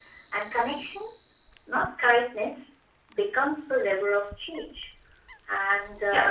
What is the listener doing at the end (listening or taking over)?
taking over